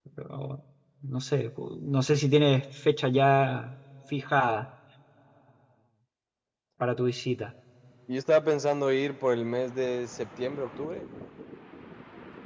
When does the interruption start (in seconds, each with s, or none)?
none